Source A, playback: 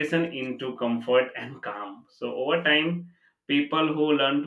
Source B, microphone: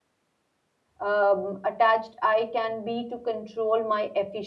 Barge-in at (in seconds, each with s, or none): 1.0 s